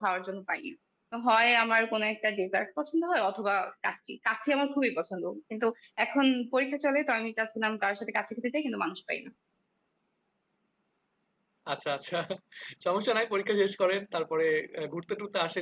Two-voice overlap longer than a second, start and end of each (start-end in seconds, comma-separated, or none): none